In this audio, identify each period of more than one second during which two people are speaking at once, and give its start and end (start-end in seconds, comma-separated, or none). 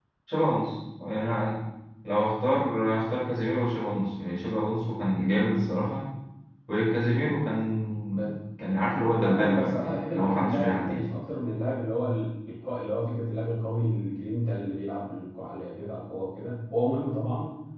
9.1-11.0